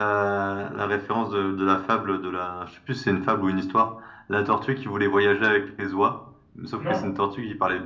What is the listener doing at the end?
listening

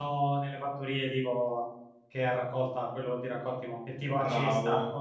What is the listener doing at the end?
taking over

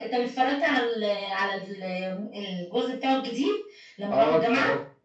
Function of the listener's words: taking over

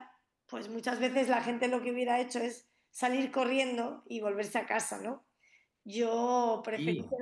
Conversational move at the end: listening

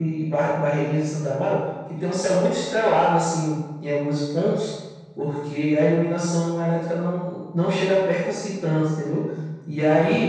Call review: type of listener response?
listening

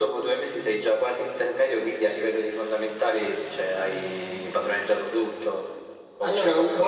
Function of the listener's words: taking over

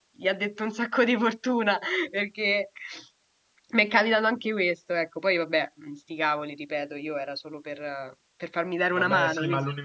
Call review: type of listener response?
taking over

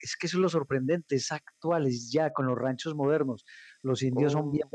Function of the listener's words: listening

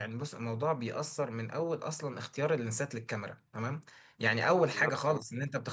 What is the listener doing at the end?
listening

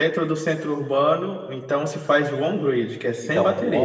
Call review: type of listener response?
taking over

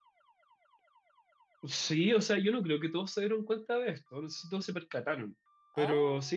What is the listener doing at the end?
listening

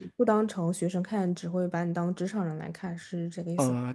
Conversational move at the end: taking over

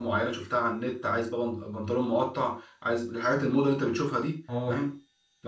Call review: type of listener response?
listening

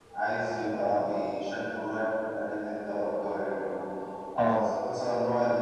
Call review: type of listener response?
listening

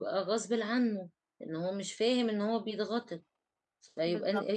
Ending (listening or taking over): listening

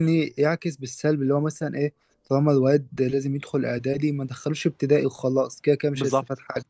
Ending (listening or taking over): taking over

